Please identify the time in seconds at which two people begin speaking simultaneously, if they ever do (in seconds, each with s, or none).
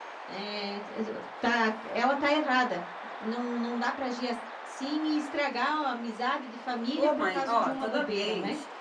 7.0 s